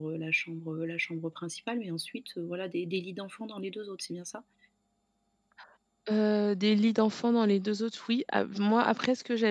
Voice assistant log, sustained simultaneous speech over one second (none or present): none